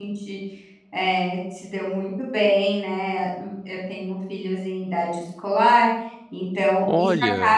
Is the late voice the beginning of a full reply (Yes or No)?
No